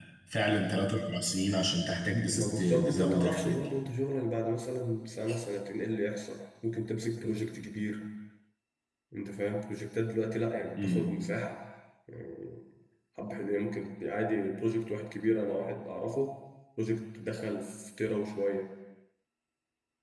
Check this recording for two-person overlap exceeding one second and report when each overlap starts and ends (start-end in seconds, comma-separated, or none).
2.3-3.7